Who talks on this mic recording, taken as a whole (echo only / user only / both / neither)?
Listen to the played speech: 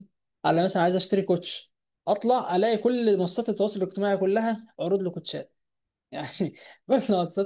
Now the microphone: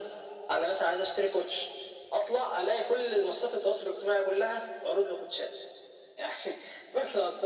echo only